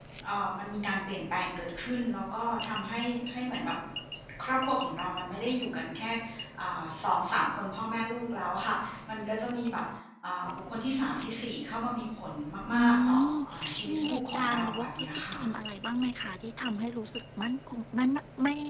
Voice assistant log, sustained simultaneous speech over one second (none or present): present